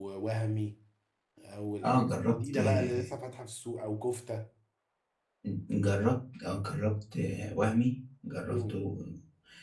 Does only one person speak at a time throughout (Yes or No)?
No